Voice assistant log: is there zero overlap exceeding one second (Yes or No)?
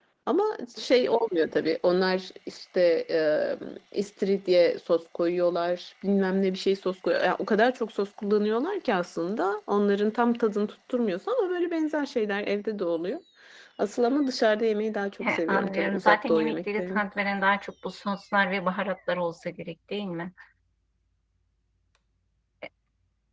No